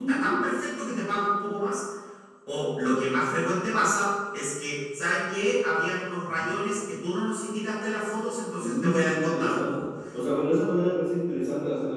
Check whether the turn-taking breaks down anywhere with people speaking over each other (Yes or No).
Yes